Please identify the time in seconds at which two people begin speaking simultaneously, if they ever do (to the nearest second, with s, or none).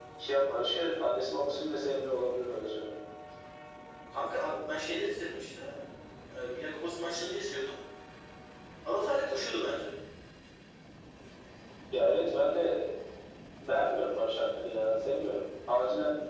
none